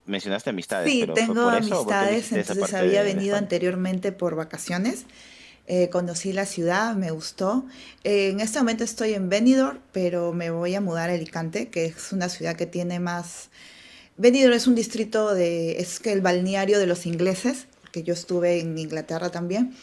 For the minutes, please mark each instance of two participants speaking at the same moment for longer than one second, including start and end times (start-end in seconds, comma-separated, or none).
0.7-3.5